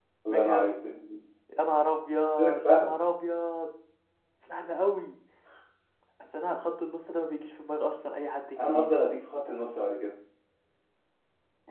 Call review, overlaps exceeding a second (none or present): none